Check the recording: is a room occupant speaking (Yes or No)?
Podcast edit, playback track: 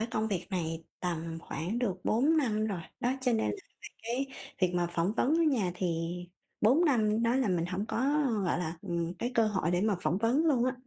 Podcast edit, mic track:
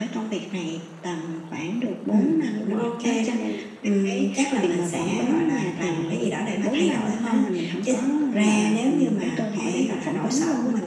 Yes